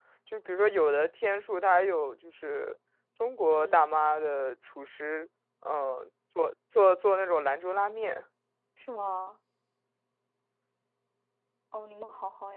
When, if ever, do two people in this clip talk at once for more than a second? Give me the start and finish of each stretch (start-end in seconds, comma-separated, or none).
none